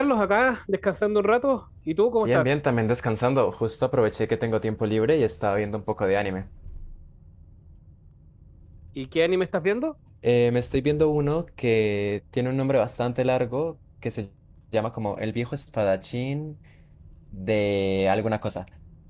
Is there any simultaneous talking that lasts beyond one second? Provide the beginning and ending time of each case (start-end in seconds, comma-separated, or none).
none